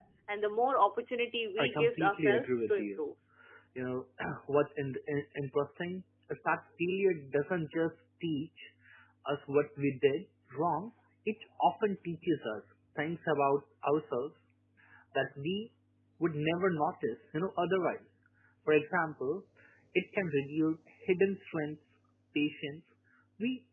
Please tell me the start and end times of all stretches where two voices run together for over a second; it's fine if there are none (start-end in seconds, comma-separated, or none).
1.6-3.0